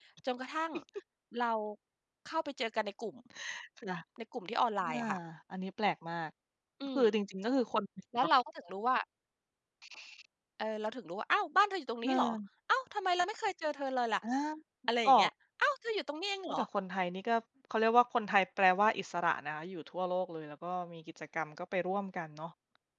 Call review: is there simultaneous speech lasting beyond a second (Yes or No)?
No